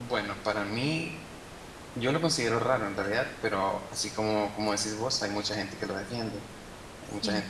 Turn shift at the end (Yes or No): No